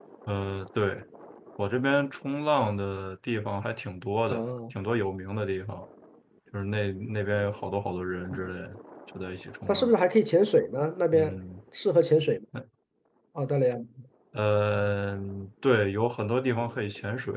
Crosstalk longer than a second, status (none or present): none